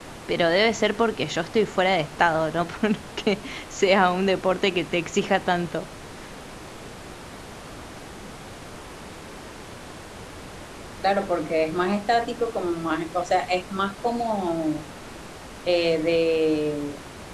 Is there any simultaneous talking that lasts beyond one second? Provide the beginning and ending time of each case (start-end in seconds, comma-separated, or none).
none